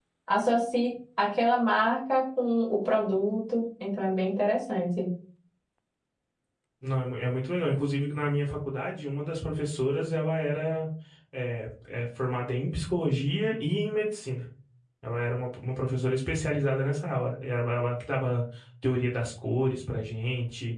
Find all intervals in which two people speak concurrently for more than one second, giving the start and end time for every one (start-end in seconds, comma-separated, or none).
none